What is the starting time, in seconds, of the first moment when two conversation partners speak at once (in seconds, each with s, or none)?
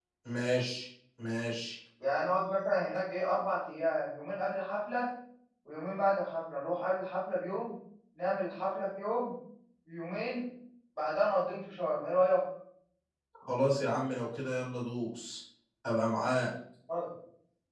none